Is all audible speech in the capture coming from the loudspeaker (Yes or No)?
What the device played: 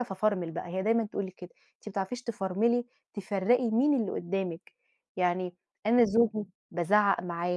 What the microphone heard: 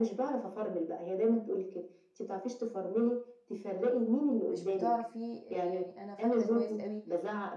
No